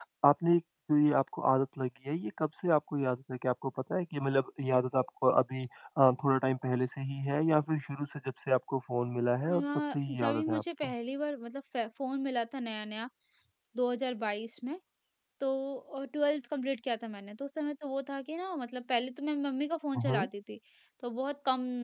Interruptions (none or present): present